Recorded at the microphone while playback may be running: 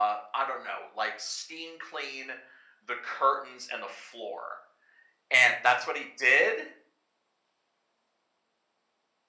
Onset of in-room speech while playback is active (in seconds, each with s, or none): none